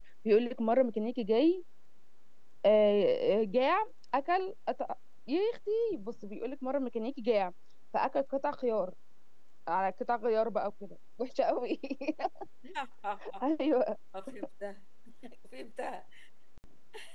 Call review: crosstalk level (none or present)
none